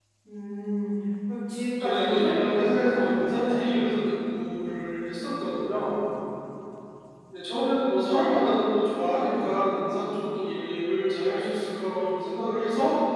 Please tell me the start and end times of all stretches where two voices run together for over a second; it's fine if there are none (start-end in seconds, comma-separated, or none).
1.8-3.6